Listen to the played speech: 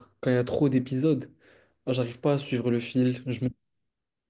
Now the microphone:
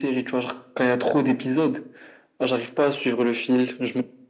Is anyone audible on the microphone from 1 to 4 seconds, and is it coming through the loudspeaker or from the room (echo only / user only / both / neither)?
echo only